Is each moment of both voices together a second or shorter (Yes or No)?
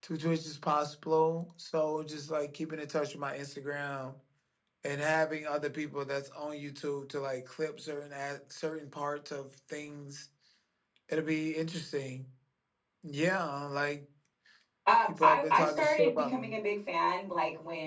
No